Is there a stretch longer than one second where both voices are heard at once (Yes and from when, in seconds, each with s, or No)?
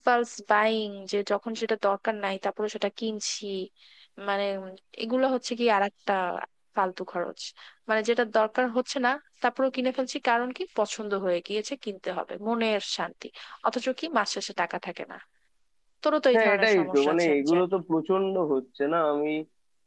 Yes, from 16.3 s